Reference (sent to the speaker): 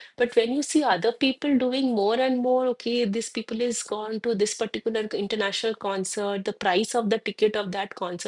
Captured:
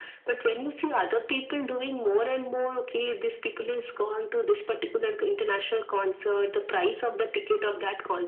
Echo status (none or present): present